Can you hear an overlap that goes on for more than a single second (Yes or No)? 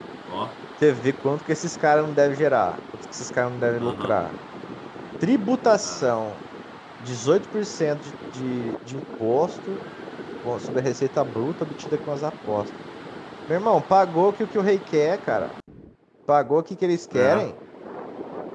No